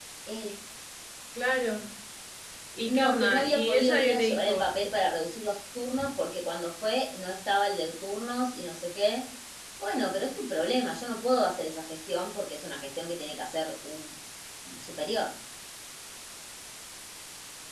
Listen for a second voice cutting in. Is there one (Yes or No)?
Yes